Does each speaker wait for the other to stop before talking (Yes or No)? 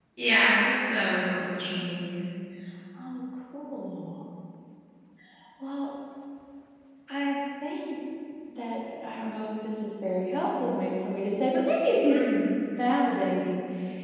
Yes